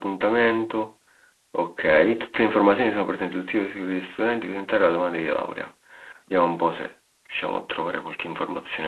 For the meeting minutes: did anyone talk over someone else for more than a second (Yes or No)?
No